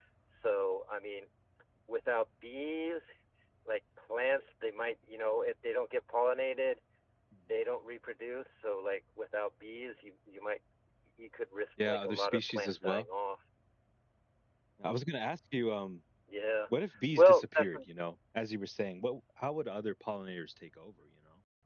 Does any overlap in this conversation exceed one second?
Yes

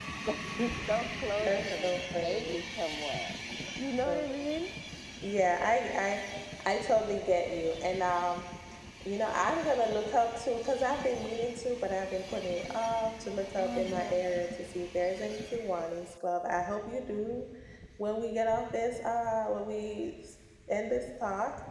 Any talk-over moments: Yes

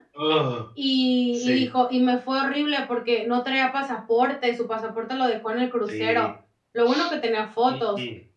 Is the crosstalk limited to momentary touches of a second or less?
Yes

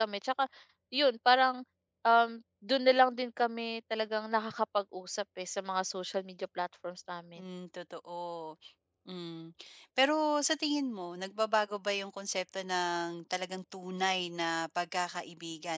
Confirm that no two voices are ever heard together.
Yes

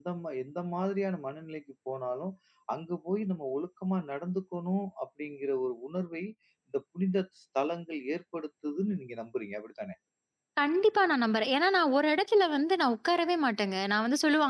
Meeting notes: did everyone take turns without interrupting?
Yes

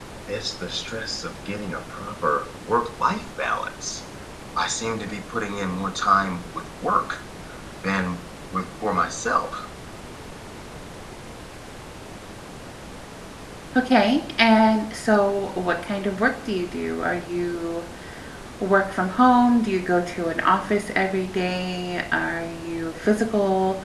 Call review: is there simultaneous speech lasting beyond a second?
No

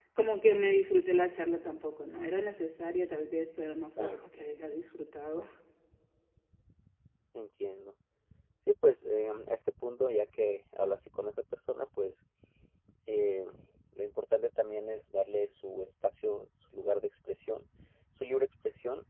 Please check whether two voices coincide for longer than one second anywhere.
No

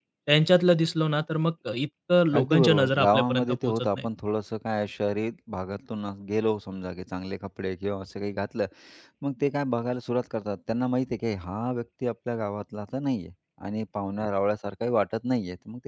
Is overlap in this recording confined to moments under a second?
No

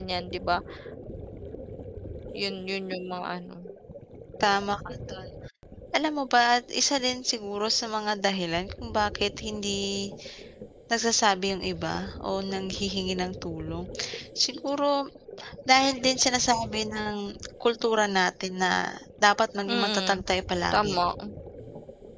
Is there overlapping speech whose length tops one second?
No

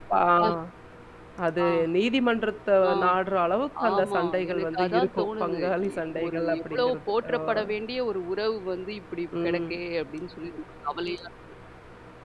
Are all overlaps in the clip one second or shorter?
No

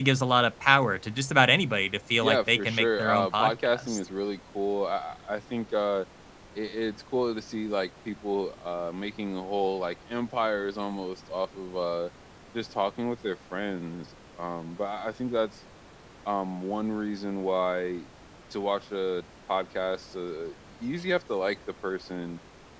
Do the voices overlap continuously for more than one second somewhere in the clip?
Yes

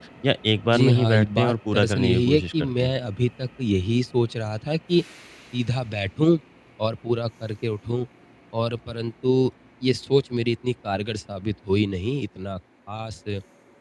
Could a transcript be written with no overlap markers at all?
No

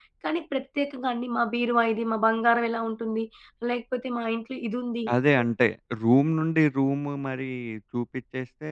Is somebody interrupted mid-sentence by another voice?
No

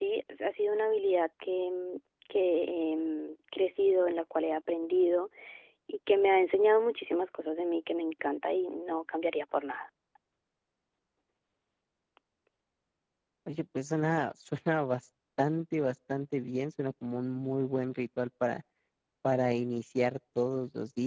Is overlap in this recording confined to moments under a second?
Yes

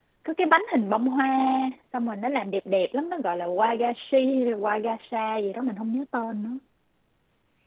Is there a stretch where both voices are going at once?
No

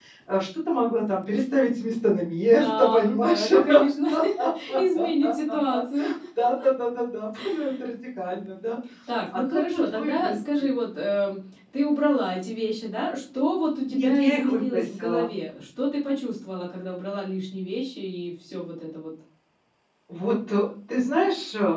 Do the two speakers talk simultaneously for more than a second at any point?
Yes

